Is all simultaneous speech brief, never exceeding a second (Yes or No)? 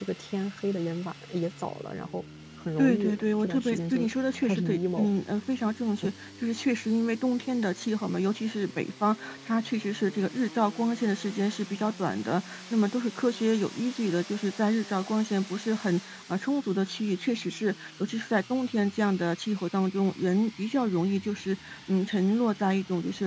No